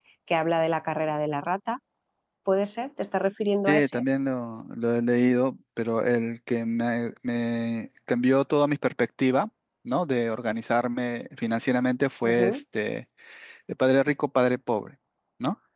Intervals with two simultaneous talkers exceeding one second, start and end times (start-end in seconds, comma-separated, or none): none